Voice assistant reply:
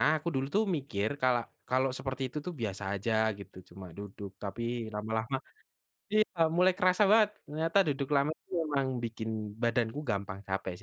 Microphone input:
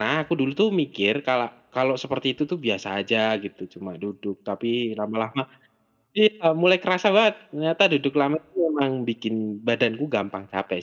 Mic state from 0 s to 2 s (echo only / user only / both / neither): echo only